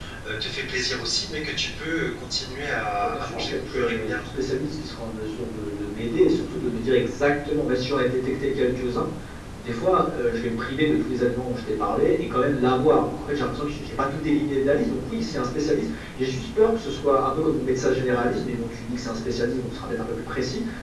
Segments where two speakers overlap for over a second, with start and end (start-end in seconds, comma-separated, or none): 3.0-4.3